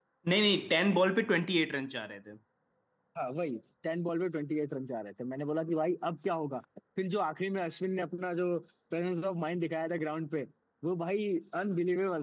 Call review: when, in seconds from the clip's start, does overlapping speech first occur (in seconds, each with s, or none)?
none